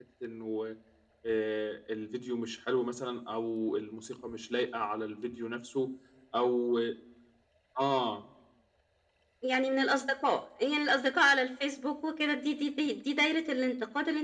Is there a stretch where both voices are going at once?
No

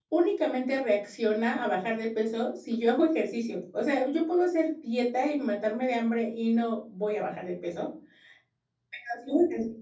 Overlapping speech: No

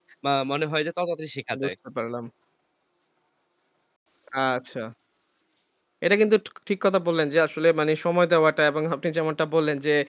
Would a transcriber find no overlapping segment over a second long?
Yes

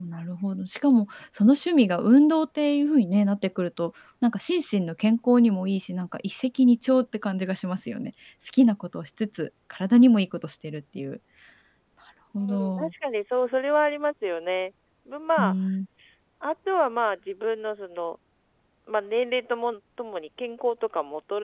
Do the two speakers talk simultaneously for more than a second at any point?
No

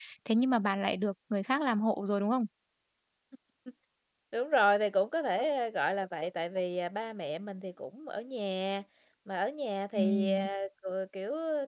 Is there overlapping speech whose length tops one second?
No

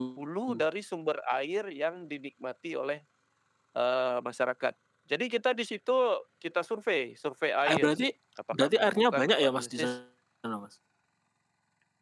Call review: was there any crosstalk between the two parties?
Yes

